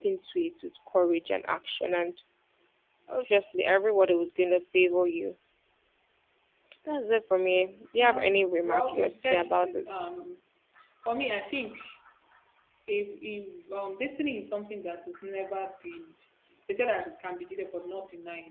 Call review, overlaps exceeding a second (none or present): present